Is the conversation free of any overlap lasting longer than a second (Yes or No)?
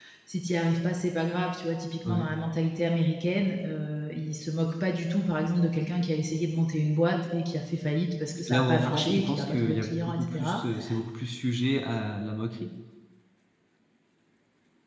No